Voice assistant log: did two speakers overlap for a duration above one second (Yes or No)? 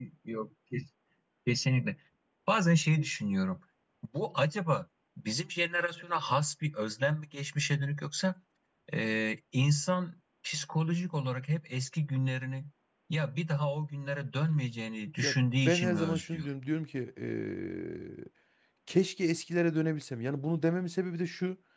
Yes